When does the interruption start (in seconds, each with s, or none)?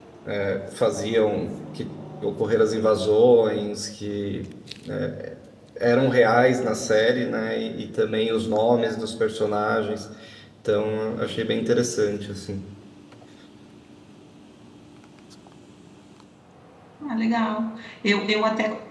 none